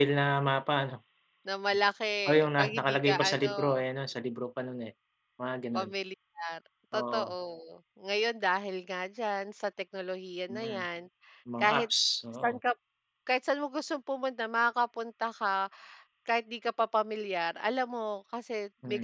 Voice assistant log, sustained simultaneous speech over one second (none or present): present